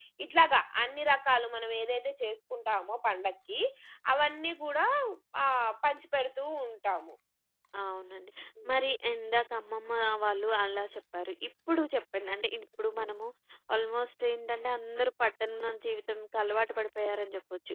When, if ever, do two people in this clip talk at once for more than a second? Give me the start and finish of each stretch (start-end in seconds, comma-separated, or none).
none